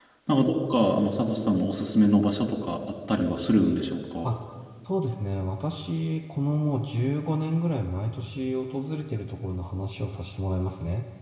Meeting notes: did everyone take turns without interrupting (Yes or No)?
Yes